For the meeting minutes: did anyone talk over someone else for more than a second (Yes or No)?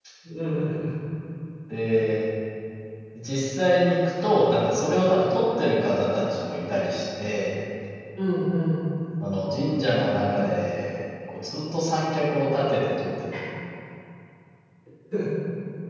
No